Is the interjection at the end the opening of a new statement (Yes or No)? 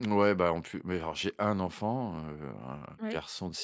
No